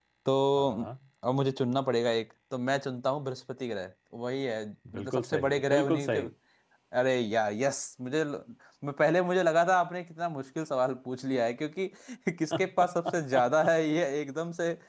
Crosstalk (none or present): present